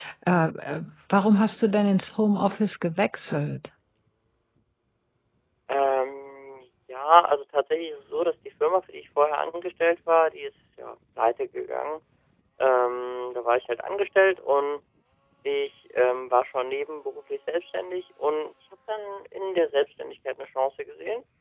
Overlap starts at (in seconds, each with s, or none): none